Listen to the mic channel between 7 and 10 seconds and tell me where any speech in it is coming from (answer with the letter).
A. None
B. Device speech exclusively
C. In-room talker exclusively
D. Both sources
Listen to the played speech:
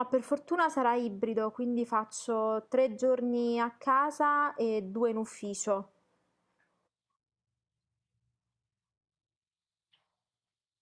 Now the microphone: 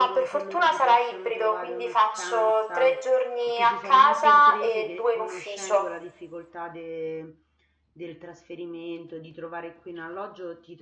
C